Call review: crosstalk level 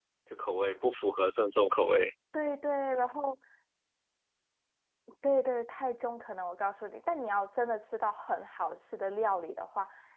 none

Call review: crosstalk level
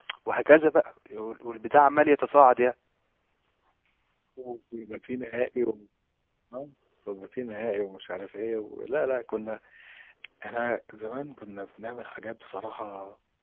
none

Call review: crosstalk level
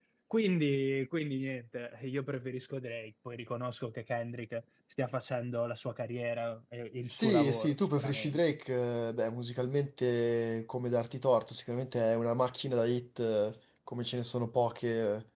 present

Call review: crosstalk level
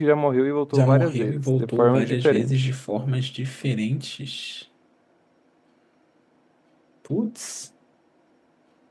present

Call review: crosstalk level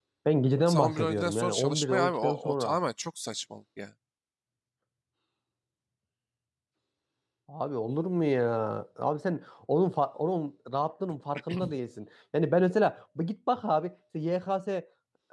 present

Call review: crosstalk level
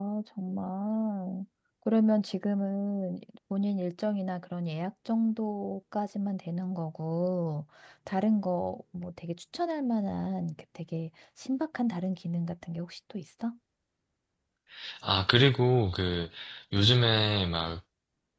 none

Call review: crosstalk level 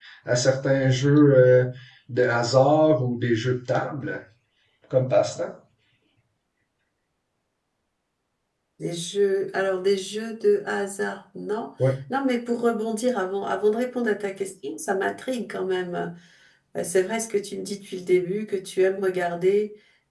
none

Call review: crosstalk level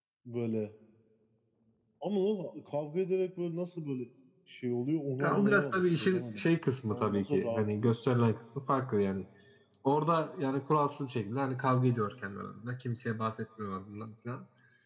present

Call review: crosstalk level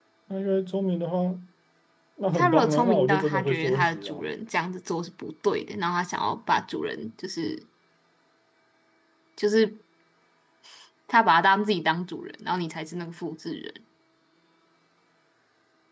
present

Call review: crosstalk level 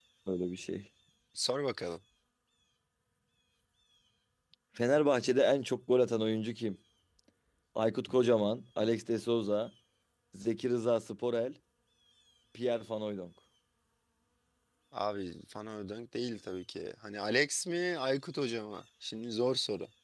none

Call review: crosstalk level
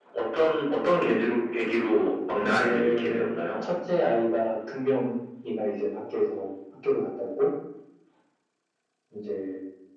present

